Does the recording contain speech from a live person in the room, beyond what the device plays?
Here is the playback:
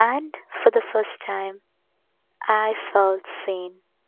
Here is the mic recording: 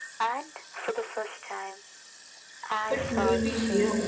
Yes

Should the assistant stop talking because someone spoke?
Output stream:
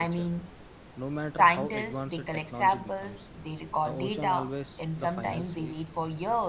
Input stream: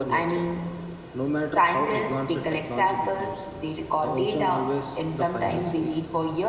No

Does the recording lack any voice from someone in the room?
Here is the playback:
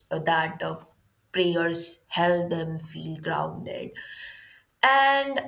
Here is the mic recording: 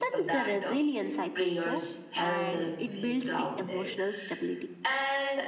No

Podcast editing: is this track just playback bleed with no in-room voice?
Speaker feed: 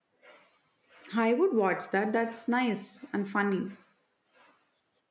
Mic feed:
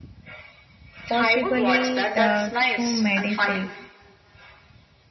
No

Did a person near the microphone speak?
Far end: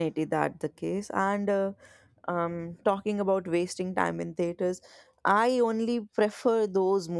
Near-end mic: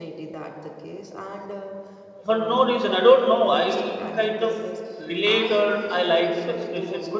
Yes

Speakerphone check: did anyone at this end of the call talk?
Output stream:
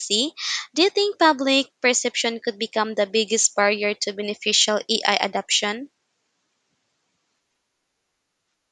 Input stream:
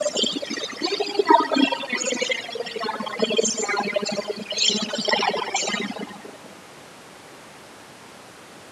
No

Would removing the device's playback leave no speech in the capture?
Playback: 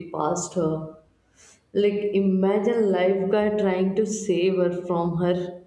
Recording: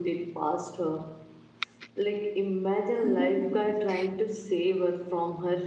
No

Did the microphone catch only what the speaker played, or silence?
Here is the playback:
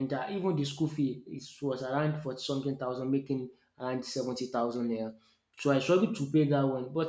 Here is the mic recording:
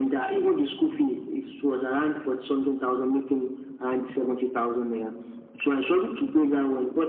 Yes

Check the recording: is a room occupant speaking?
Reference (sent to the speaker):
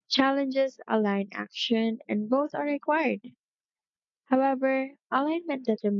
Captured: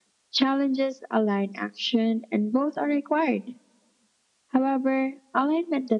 No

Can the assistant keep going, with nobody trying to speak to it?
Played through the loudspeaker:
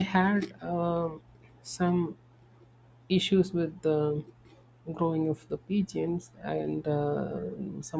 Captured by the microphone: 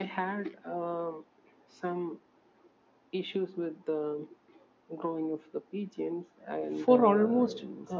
No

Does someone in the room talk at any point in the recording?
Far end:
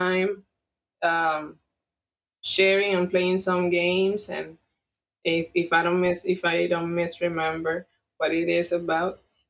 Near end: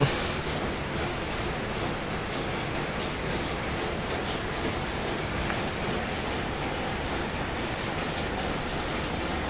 No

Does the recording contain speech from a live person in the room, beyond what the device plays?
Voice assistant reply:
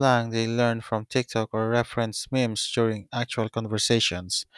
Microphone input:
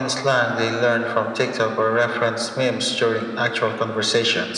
No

